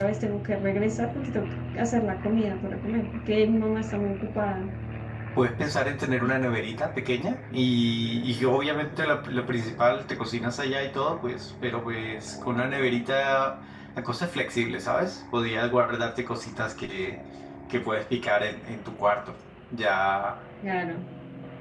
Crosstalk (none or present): none